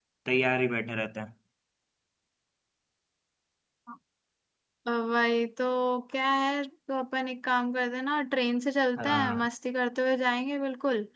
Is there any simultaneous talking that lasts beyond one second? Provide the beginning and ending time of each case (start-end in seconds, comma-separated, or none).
none